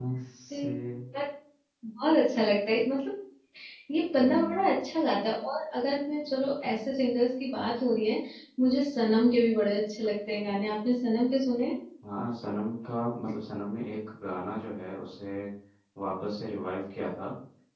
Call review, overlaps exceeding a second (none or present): none